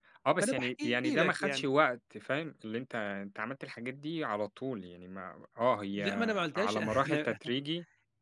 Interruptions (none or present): present